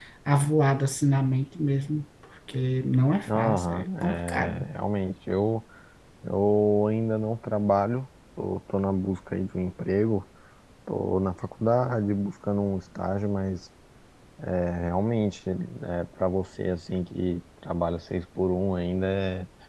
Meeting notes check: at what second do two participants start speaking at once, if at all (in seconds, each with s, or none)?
3.3 s